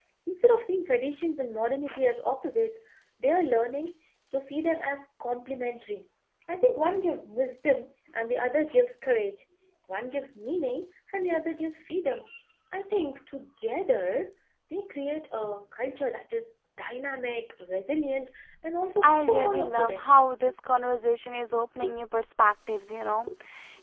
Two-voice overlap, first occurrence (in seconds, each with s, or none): 19.0 s